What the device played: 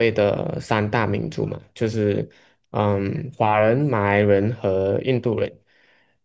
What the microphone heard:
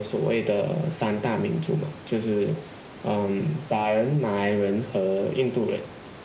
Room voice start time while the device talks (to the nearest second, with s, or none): none